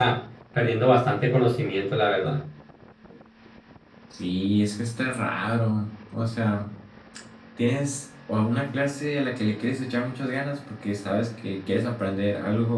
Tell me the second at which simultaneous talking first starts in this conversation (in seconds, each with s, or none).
none